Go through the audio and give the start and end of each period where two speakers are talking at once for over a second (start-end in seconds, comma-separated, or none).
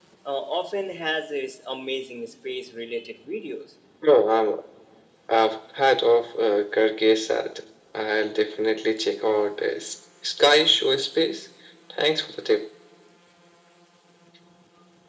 none